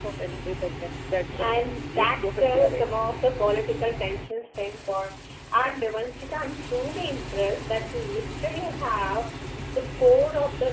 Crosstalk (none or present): present